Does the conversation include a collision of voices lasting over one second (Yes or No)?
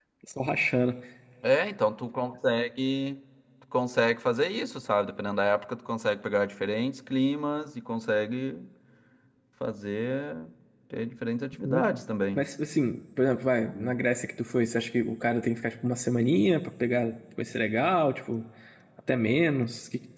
No